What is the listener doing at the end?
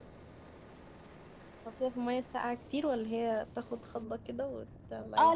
taking over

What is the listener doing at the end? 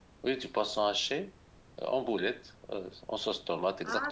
taking over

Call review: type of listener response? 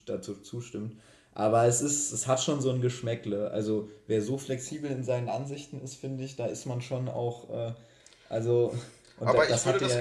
taking over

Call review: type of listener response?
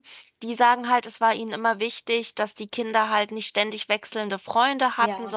listening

